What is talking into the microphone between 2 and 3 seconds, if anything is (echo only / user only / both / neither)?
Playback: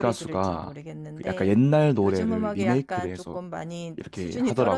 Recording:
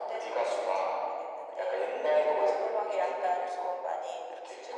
echo only